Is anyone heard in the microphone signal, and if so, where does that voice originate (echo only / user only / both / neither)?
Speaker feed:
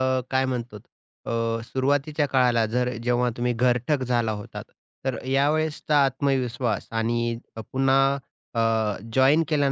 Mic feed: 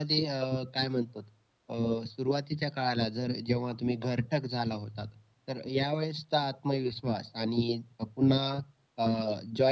echo only